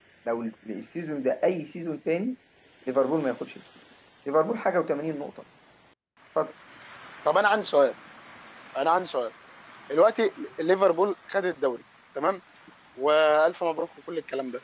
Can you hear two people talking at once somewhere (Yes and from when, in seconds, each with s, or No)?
No